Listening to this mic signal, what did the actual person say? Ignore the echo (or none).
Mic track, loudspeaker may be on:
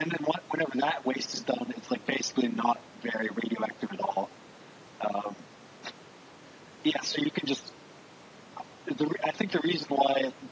none